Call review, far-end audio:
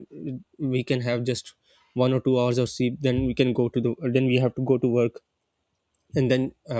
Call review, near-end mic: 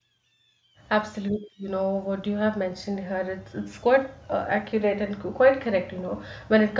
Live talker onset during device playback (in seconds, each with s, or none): 0.9 s